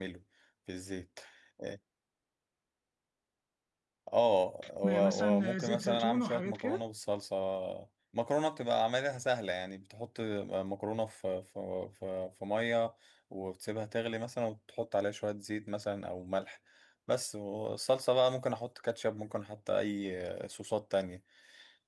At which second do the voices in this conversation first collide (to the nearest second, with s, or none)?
5 s